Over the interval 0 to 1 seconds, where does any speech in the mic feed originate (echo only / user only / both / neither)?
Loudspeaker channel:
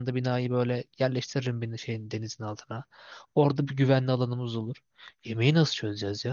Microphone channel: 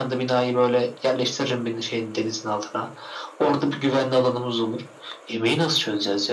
echo only